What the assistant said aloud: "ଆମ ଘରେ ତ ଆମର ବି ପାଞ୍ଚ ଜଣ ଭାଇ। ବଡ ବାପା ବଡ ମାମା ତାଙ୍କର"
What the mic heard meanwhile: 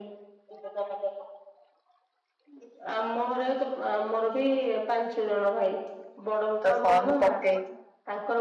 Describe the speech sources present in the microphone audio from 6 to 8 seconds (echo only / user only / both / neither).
both